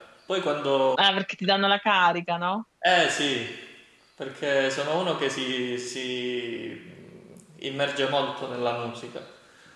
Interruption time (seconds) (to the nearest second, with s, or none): none